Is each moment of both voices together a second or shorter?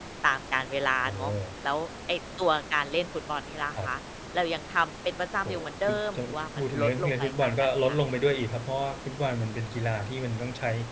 No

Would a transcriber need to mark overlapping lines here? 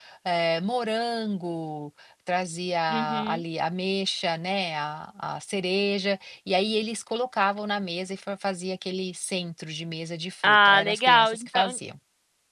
Yes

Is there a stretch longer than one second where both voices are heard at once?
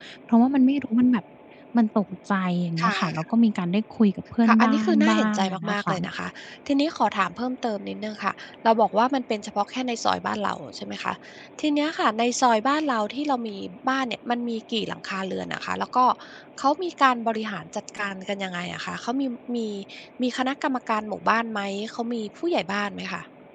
Yes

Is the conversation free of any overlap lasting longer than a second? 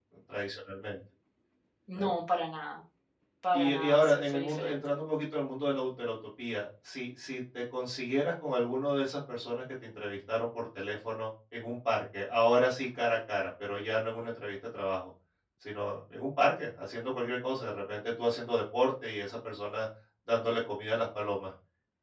No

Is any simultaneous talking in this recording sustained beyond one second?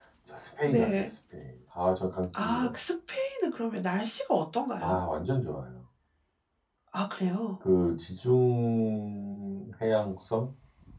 No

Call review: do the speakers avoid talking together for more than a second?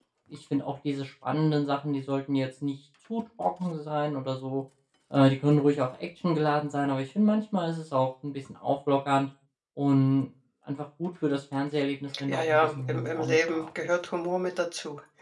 No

